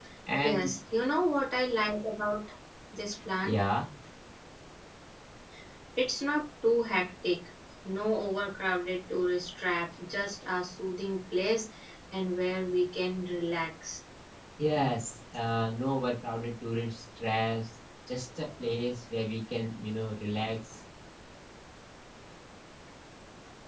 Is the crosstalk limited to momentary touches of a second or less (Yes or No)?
Yes